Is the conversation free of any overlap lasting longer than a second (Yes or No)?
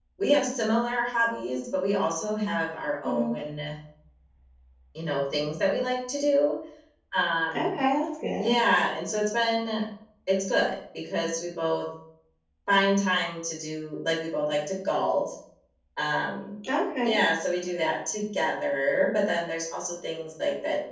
Yes